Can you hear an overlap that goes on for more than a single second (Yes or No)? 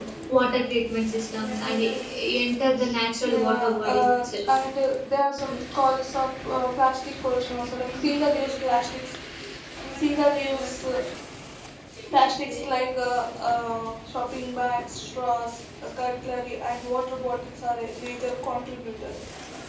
Yes